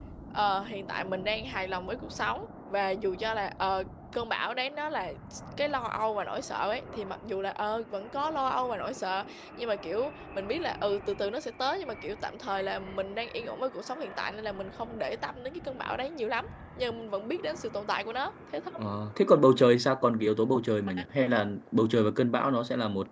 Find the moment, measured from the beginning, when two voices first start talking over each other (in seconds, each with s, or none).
none